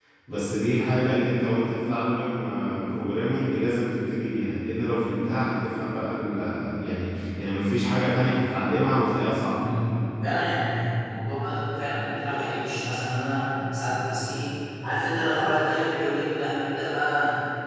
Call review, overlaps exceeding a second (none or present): none